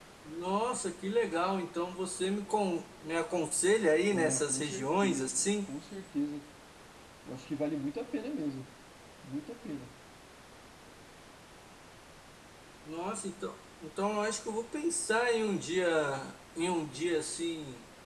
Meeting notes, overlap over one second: present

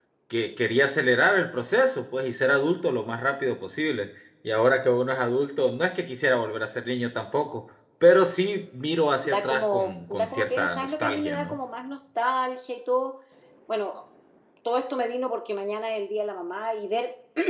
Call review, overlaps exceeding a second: present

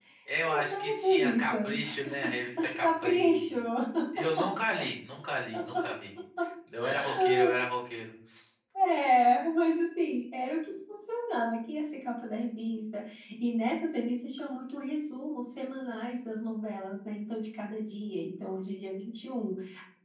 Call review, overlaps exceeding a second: present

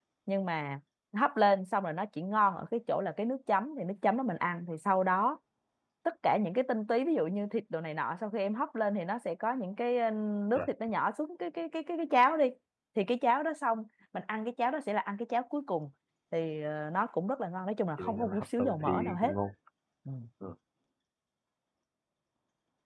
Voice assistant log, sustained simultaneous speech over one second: present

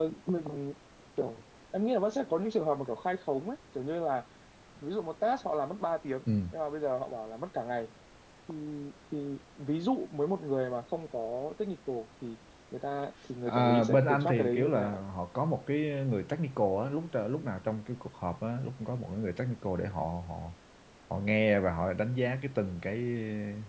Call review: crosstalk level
present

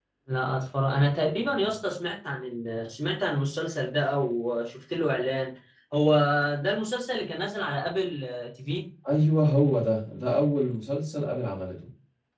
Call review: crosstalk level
none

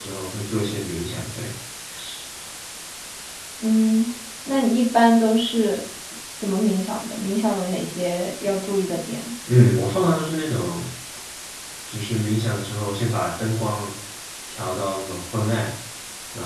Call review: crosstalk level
none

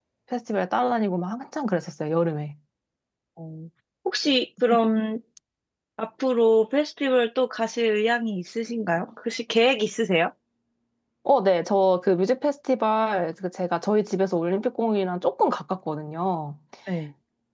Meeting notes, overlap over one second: none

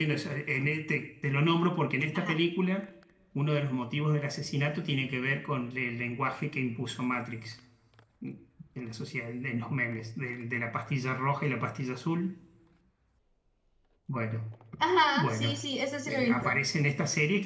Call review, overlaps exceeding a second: none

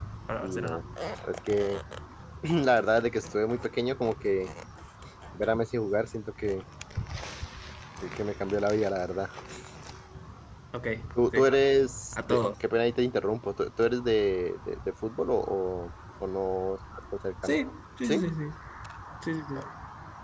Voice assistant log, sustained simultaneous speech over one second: none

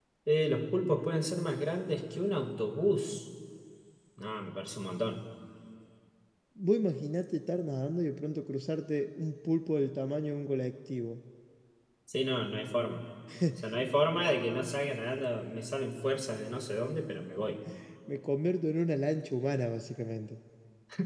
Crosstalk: none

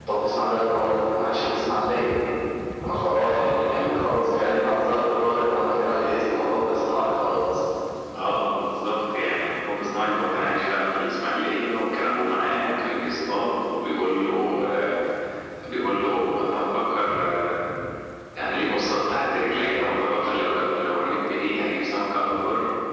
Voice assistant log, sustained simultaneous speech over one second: present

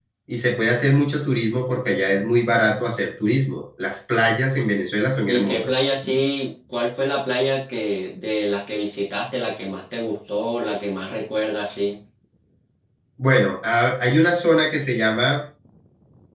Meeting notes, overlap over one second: none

